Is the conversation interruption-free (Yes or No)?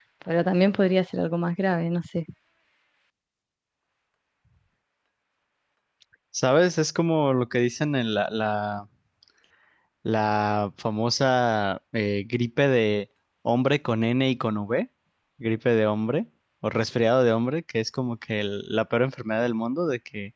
Yes